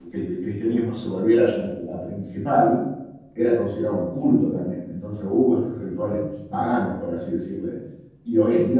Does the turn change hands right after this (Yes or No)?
No